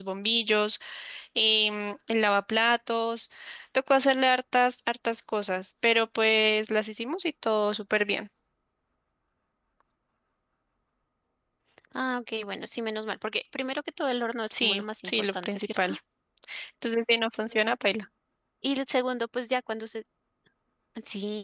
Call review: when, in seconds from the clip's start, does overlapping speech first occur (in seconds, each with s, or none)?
14.5 s